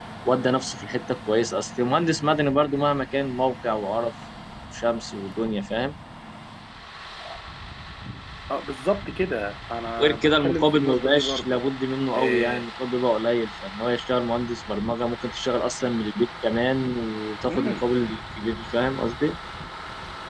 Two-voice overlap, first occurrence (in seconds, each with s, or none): 10.0 s